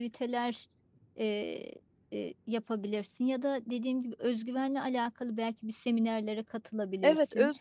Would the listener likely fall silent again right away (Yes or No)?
No